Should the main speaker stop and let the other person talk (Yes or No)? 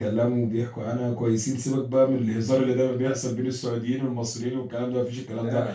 No